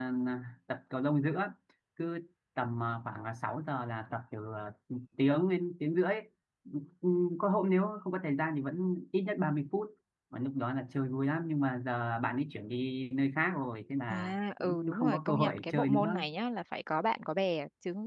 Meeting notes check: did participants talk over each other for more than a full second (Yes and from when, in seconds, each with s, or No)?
Yes, from 14.1 s